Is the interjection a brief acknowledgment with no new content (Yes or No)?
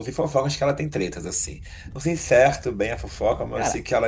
Yes